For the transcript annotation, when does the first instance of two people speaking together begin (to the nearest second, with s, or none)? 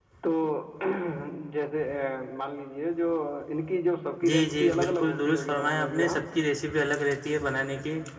4 s